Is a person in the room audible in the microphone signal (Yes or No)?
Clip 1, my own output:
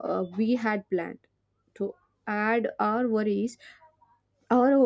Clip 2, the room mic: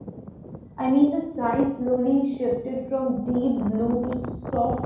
Yes